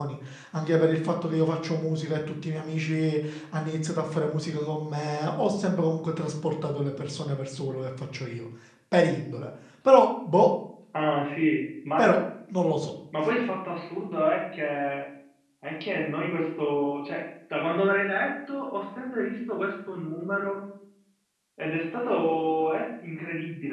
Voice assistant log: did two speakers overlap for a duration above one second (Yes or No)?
No